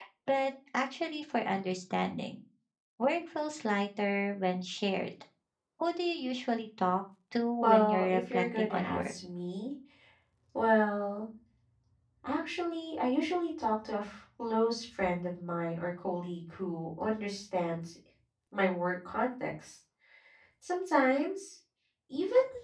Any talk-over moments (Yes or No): Yes